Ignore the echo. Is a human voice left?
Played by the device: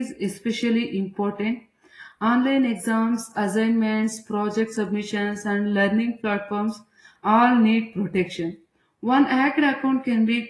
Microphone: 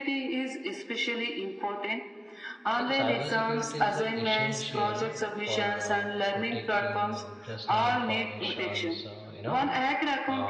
Yes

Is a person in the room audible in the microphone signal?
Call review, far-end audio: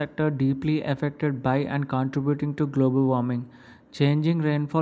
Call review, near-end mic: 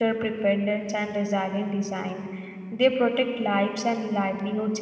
Yes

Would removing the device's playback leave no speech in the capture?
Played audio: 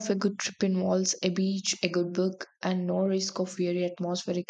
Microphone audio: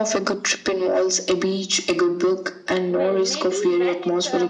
No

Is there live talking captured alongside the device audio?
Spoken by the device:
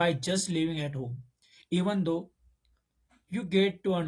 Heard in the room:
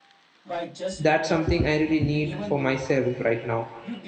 Yes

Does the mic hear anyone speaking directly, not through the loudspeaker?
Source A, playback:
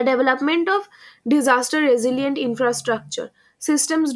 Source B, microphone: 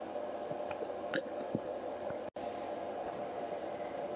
No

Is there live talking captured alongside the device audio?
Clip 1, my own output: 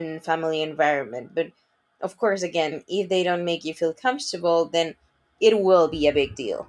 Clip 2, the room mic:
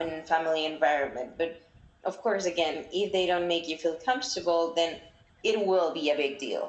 No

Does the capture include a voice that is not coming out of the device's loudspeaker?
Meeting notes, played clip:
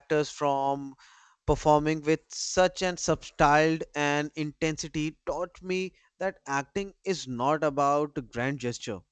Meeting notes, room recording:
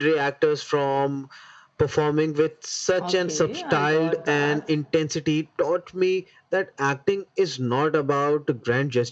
Yes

